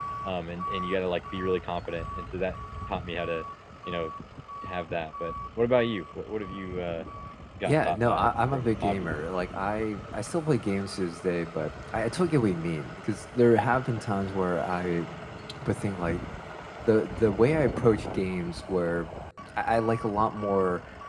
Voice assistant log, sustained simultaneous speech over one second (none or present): present